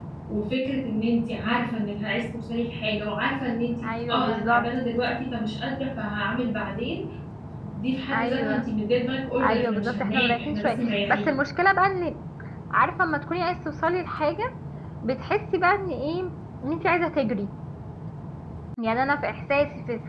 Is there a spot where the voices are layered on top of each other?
Yes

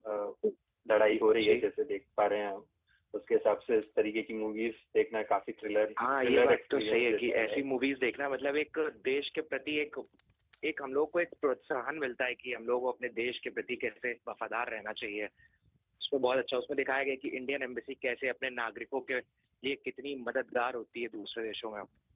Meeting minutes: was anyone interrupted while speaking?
Yes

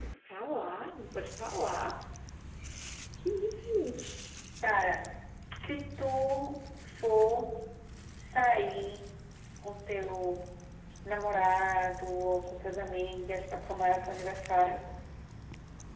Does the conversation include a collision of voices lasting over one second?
No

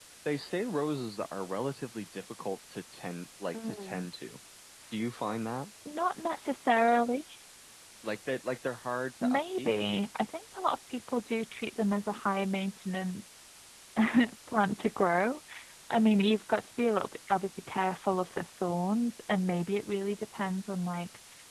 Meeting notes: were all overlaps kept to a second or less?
Yes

